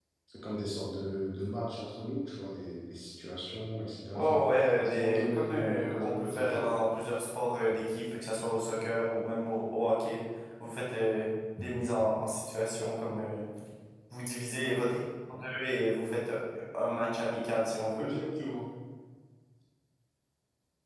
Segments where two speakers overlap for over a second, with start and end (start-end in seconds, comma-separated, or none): 4.8-6.7